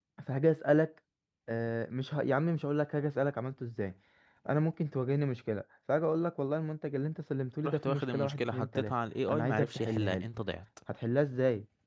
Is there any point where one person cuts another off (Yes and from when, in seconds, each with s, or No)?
Yes, from 7.6 s